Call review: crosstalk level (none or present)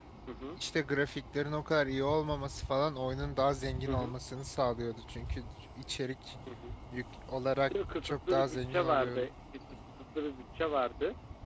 present